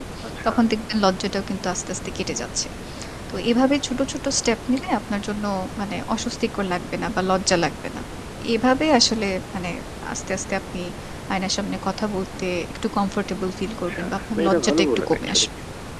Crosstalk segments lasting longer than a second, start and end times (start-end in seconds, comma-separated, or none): 13.8-15.5